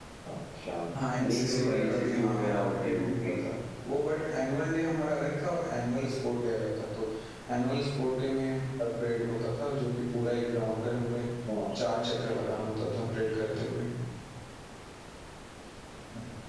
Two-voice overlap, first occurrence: 1.2 s

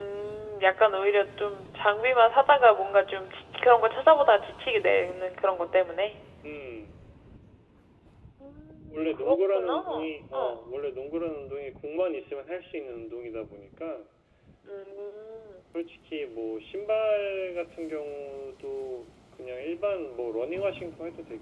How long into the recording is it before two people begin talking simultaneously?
8.9 s

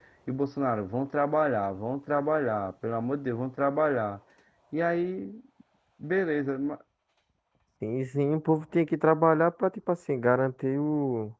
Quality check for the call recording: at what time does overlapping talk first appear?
none

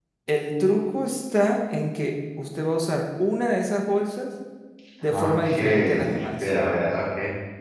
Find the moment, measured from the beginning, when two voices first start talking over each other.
5.1 s

